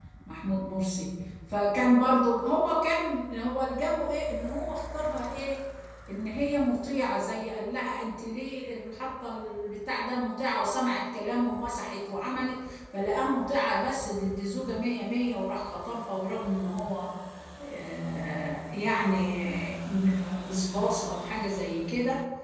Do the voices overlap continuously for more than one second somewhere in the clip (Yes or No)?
No